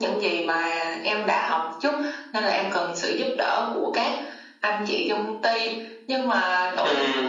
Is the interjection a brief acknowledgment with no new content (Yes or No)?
Yes